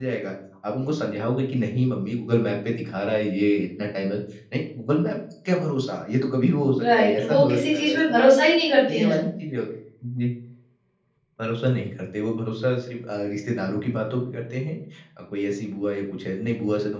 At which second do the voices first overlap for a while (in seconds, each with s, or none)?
6.8 s